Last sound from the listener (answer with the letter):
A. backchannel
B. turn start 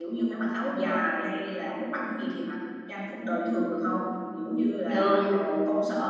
A